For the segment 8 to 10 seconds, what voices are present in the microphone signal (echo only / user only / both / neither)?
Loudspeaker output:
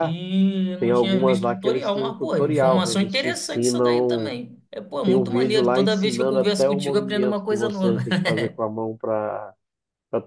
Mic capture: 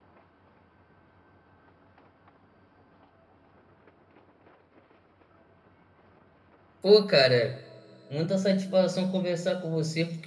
user only